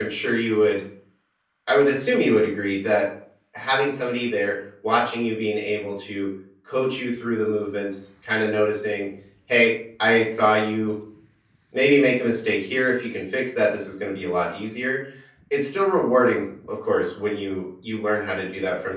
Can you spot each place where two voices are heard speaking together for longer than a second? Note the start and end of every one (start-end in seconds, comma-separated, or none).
none